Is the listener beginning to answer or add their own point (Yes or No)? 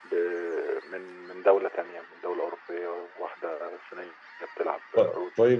Yes